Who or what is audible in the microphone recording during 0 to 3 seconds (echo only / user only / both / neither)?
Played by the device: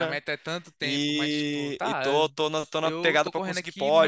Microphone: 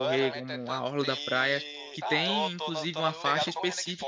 both